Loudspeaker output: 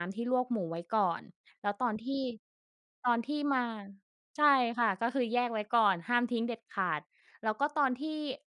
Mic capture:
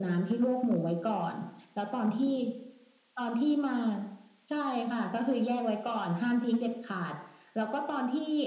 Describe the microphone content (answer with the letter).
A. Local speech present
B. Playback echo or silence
B